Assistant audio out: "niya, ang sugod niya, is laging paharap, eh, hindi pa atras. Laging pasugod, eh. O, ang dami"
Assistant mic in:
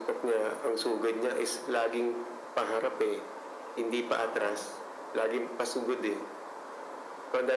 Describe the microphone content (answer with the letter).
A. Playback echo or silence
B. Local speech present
B